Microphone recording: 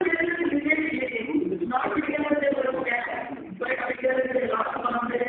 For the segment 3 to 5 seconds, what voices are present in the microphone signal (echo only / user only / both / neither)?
both